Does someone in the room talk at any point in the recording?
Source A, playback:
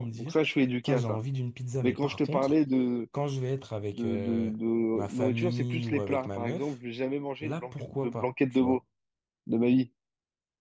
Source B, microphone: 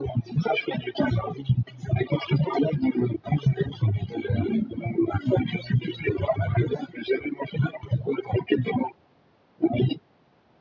No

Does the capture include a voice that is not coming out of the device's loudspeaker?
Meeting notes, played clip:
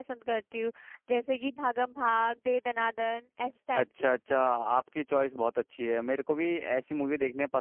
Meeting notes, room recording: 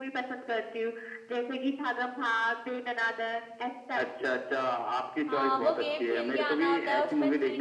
Yes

